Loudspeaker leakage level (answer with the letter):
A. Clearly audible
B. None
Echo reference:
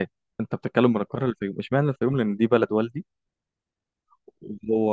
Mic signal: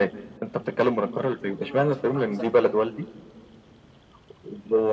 A